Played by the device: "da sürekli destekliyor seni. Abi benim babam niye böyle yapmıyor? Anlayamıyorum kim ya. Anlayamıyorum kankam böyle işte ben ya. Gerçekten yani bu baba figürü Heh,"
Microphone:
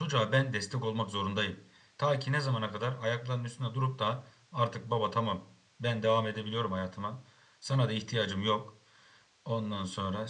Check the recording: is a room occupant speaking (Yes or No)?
Yes